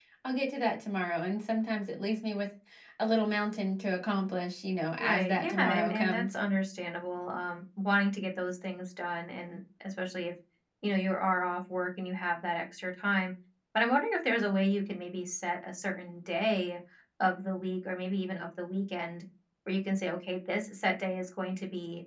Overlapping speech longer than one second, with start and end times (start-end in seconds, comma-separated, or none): 5.0-6.4